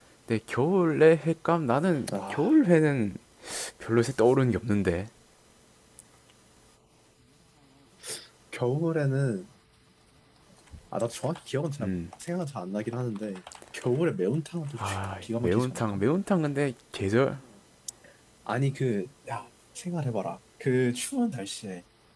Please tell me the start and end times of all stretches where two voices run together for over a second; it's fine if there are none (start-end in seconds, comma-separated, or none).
14.8-16.0